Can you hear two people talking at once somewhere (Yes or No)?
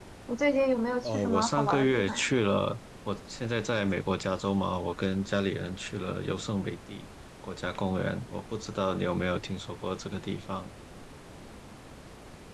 Yes